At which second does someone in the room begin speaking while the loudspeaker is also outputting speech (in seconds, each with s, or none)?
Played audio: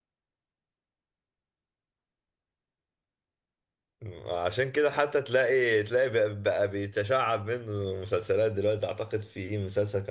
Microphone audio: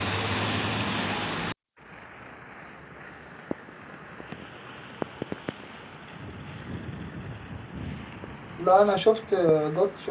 8.6 s